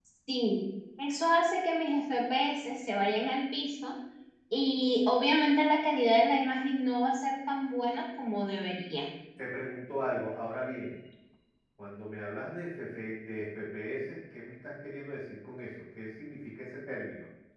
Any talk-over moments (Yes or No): No